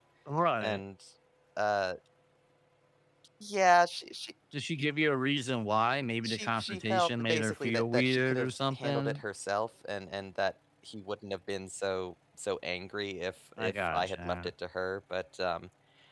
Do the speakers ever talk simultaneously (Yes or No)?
Yes